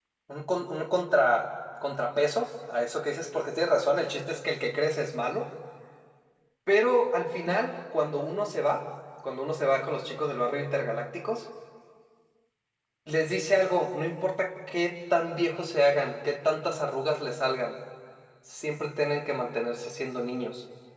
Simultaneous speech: No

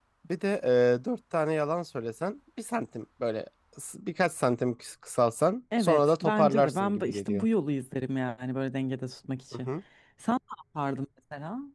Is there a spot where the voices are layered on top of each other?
Yes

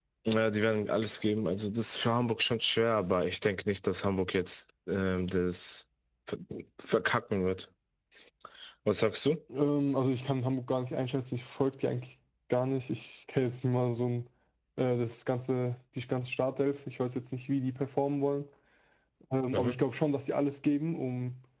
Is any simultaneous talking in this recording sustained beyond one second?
No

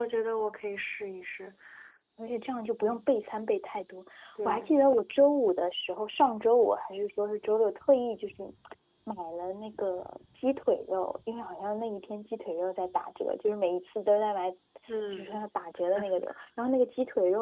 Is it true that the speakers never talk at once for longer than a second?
Yes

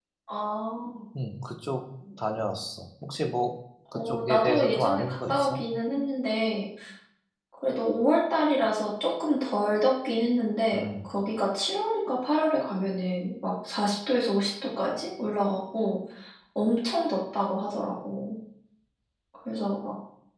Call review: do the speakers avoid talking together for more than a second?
No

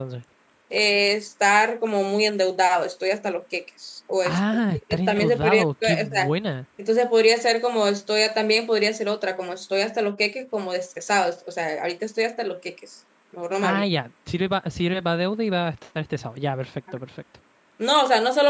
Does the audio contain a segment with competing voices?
Yes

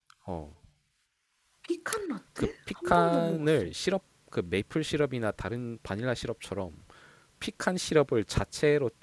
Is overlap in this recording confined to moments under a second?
No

